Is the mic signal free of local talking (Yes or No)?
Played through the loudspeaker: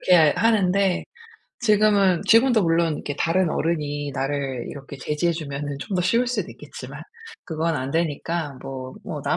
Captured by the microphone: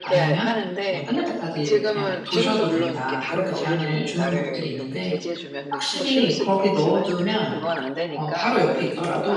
No